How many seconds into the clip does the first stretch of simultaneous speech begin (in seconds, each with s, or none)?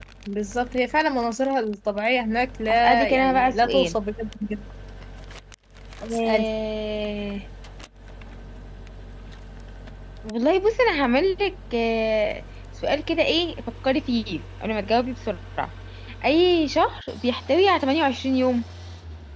2.7 s